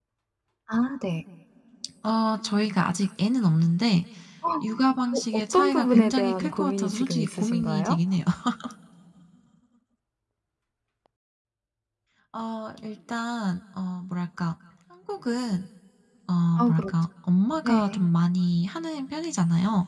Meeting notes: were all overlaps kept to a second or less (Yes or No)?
No